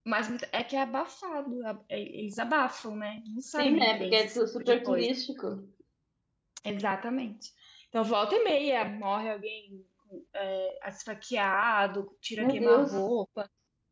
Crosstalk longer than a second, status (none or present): present